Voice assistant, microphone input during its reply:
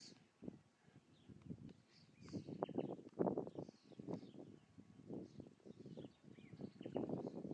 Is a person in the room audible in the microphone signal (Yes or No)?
No